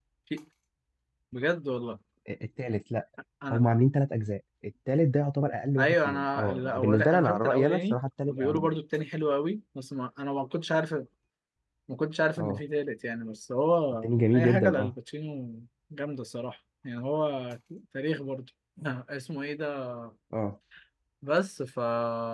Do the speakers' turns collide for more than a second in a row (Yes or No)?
Yes